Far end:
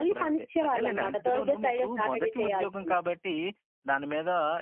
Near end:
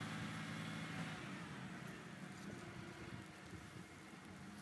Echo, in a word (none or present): none